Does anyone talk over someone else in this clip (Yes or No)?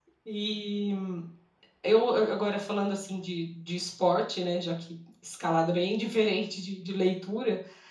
No